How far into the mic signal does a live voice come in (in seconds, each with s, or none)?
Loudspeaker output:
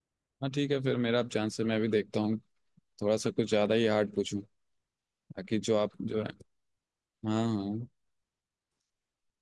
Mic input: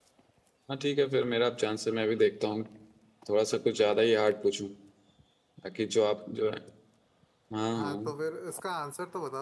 7.8 s